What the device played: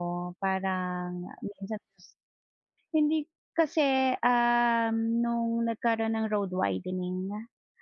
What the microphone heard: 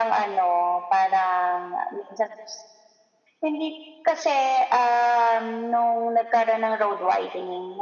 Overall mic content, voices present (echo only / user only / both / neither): echo only